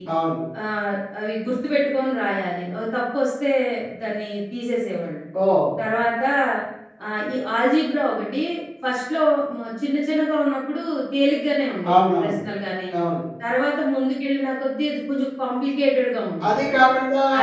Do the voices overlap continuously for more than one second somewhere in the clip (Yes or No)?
No